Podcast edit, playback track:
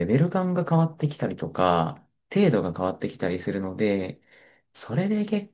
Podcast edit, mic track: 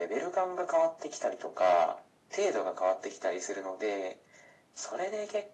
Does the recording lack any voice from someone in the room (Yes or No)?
Yes